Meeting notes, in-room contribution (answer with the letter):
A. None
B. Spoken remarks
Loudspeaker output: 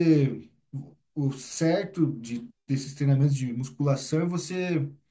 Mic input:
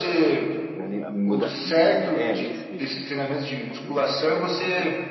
B